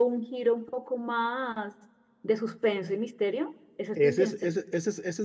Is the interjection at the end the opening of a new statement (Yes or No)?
Yes